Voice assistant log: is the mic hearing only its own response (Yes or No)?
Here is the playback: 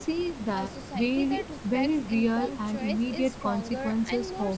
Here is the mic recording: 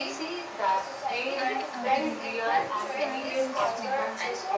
No